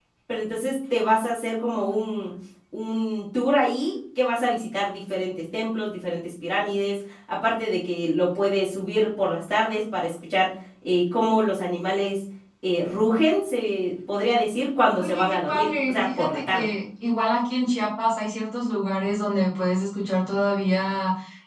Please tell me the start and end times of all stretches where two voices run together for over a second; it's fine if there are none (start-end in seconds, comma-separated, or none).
14.9-16.6